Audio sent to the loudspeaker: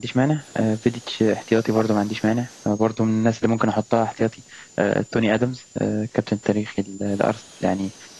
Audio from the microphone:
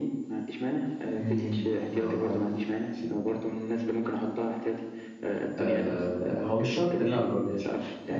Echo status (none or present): present